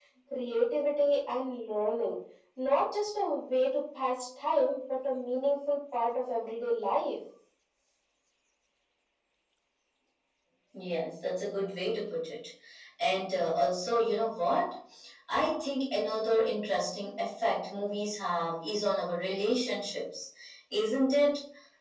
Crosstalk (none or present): none